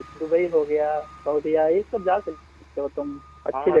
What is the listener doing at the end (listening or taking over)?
taking over